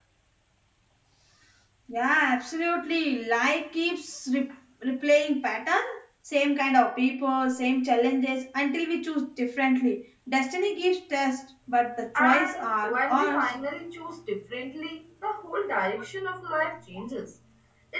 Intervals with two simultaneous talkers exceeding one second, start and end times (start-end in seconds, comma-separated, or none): 12.2-13.5